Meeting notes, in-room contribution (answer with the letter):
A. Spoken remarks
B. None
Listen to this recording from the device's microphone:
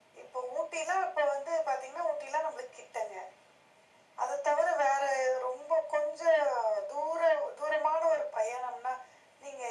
B